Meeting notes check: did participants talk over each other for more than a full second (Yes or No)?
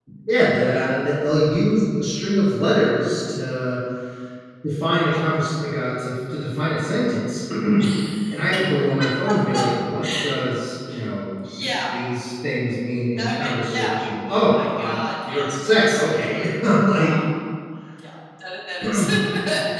Yes